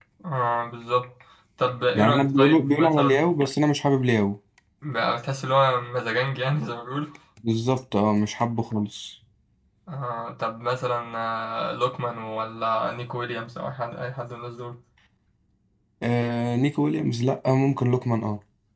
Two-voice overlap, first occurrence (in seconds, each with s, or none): 1.9 s